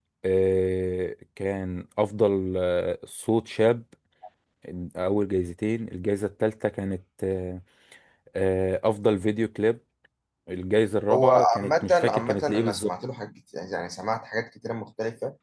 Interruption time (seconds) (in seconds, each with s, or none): 11.1 s